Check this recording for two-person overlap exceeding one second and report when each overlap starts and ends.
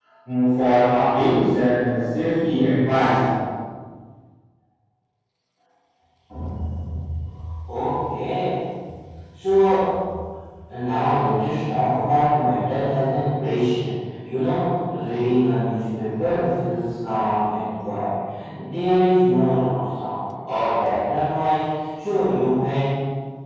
none

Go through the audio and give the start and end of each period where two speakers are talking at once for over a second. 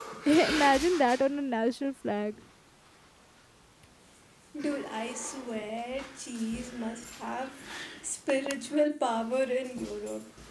none

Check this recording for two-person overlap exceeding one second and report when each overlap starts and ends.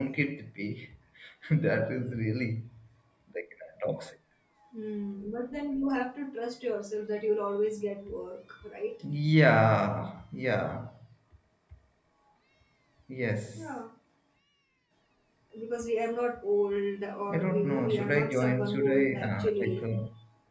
17.3-19.8

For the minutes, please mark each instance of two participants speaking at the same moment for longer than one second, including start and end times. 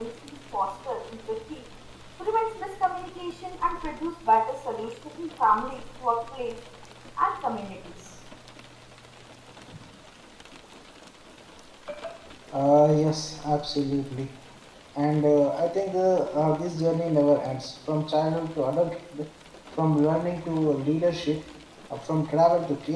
none

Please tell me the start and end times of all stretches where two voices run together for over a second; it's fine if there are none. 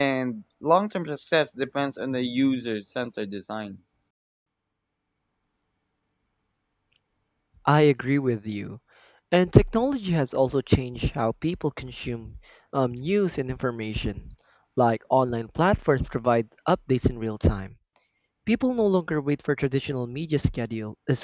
none

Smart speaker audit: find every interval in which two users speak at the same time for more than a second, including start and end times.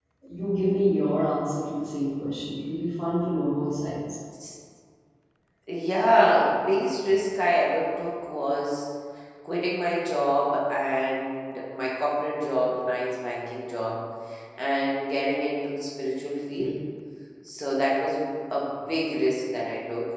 none

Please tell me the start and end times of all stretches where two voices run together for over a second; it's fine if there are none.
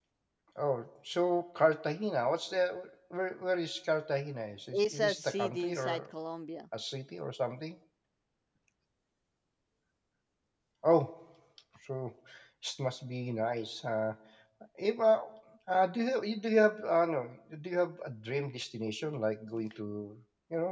4.7-6.0

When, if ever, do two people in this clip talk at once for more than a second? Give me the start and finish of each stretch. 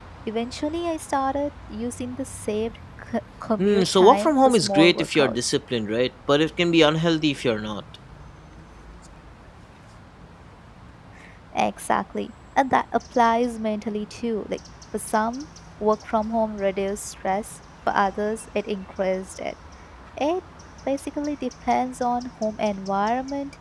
3.6-5.5

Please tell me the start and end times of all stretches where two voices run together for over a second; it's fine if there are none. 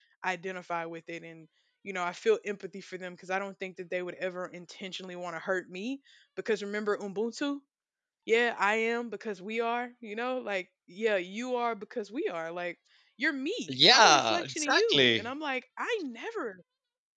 13.7-15.3

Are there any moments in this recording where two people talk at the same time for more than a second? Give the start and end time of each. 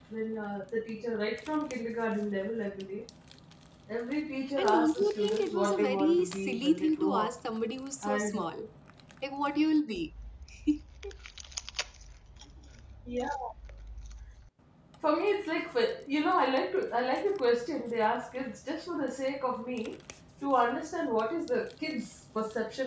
4.6-7.4

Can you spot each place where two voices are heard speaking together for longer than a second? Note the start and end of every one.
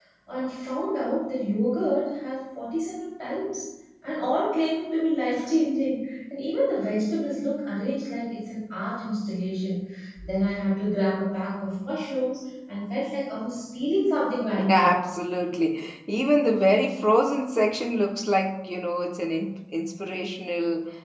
none

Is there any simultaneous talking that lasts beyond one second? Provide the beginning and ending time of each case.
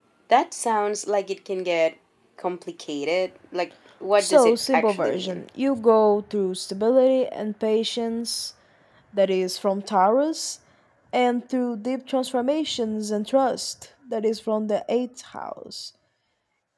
4.2-5.4

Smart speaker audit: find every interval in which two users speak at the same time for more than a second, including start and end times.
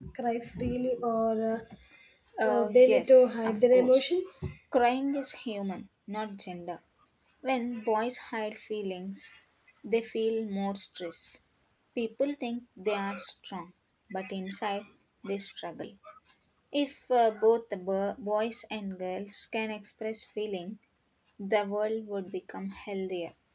2.5-4.2

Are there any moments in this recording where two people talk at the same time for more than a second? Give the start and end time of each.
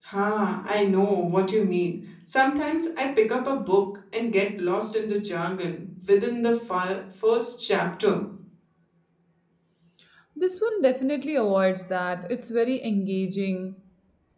none

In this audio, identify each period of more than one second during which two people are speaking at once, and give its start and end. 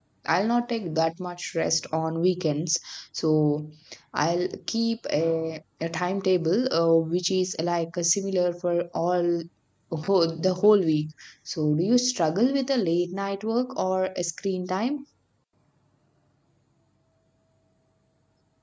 none

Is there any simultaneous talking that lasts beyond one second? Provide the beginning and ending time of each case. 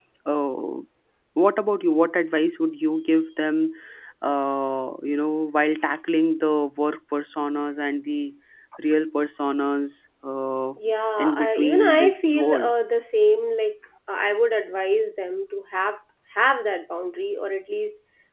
11.2-12.7

